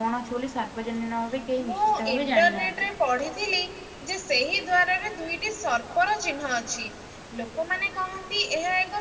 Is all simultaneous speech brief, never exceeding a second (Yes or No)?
No